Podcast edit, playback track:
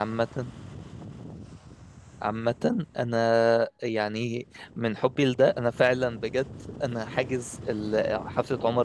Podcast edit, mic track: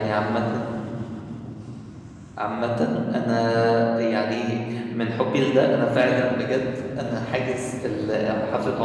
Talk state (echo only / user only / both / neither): echo only